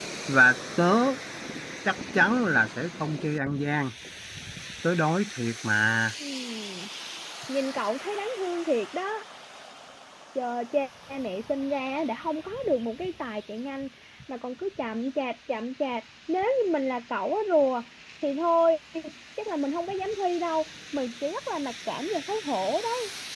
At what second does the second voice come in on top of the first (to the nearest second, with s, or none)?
none